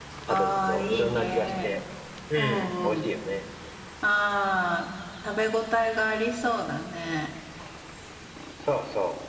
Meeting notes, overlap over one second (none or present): present